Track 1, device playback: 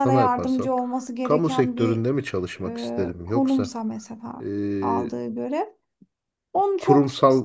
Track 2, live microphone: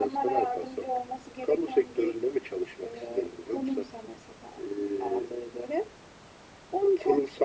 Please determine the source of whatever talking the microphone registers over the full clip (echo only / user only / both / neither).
echo only